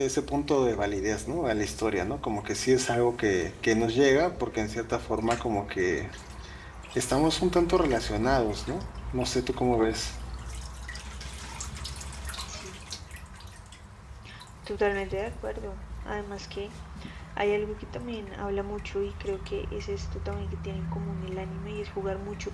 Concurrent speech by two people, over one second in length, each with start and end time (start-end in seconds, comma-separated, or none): none